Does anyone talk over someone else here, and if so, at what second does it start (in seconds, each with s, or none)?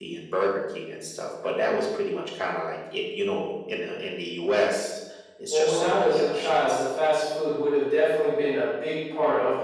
5.5 s